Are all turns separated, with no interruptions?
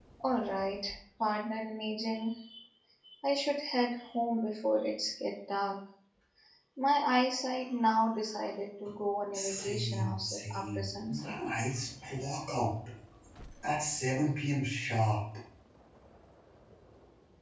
No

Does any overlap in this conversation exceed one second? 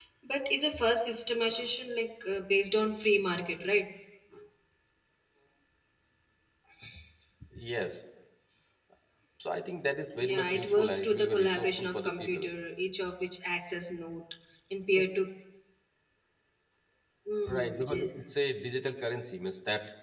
Yes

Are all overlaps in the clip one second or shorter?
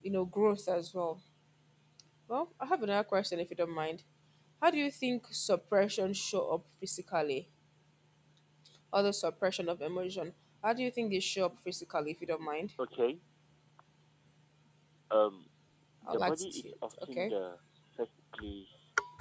No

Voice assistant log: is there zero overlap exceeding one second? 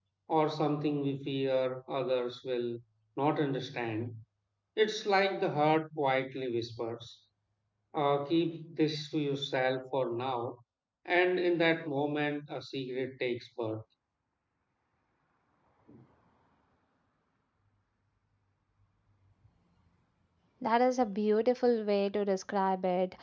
Yes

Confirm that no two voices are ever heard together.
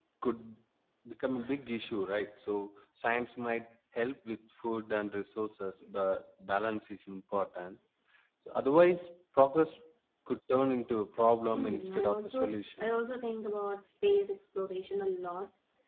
No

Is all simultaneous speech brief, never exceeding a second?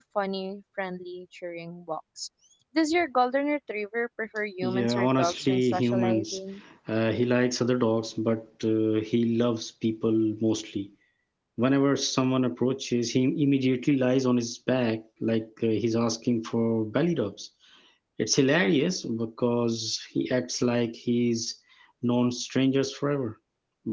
No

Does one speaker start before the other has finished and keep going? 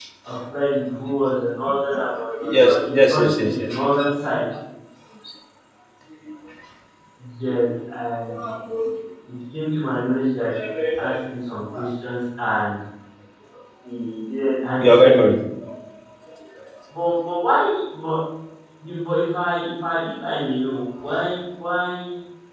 Yes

